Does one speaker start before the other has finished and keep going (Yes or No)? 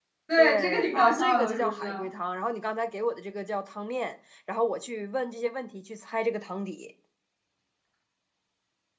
Yes